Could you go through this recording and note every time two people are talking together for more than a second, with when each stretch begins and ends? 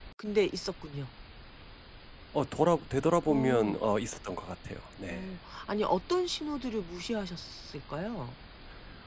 none

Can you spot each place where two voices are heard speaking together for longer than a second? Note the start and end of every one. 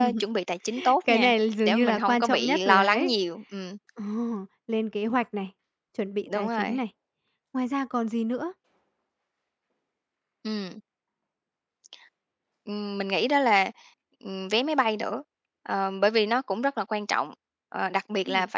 1.7-3.1

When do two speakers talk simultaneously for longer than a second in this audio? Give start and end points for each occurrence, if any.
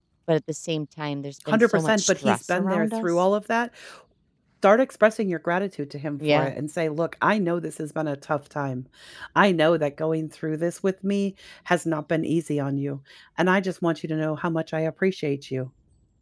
1.5-3.2

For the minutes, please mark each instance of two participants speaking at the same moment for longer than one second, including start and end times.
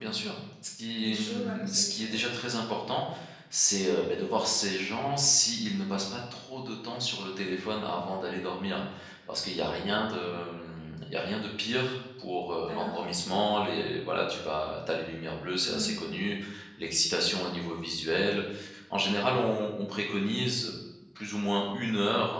1.0-2.2

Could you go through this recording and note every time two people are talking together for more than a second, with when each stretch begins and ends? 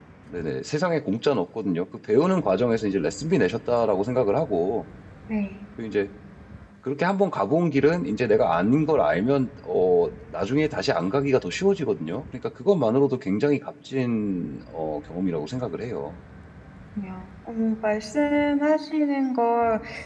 none

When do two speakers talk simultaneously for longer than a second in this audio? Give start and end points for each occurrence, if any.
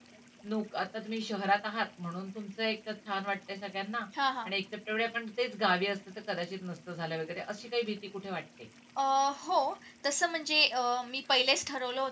none

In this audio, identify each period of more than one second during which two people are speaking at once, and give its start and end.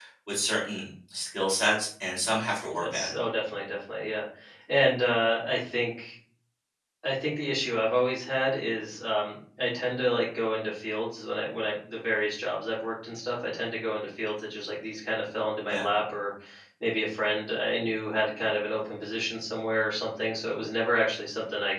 none

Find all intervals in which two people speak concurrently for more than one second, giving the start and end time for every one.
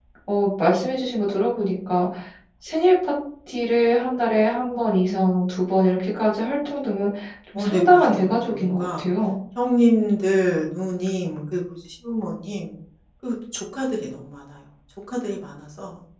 7.6-9.0

